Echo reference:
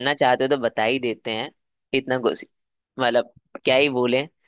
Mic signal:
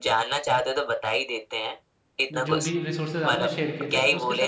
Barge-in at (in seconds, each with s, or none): 2.3 s